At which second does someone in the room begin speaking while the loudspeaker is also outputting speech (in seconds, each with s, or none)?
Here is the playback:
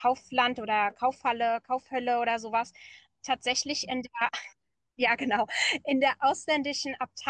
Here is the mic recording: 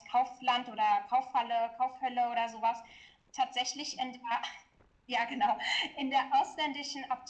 none